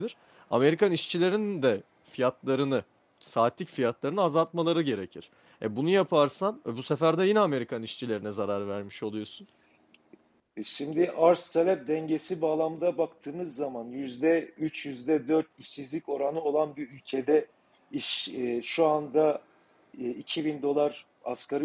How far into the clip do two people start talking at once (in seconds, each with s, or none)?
none